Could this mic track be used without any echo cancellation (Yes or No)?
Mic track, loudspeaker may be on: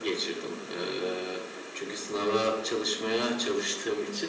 No